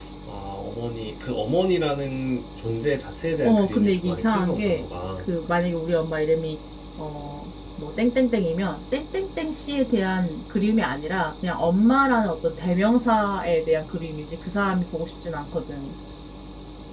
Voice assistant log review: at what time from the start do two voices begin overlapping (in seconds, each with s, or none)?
3.4 s